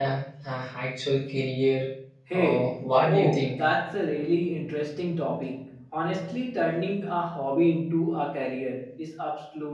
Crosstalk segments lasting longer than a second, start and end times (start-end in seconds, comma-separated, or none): 2.3-3.6